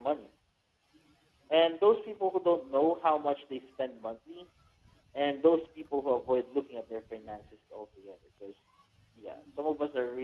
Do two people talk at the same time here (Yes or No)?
No